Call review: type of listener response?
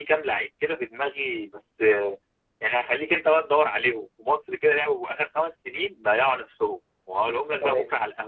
listening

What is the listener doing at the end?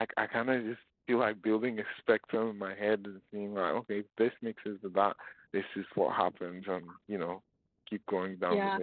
taking over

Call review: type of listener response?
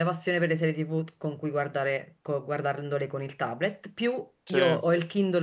listening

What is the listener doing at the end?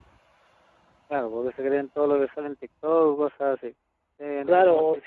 taking over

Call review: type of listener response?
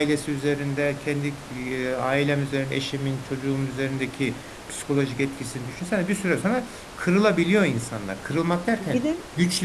listening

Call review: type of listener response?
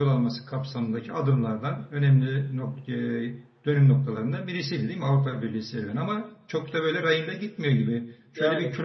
listening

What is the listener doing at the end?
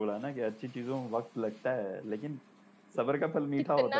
taking over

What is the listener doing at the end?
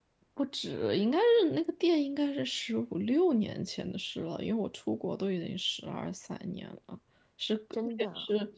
listening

